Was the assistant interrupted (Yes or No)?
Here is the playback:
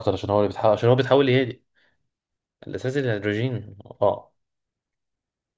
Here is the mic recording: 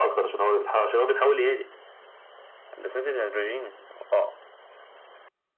No